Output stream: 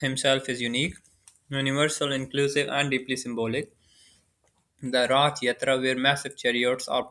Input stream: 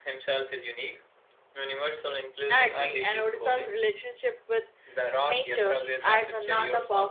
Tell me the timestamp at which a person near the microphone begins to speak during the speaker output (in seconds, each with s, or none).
2.5 s